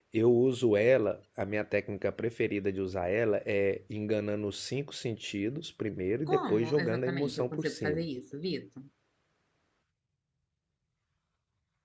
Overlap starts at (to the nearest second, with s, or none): 6 s